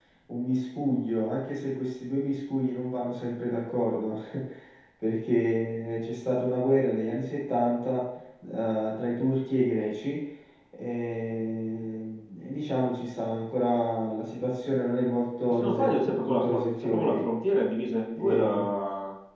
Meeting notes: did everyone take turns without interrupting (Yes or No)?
No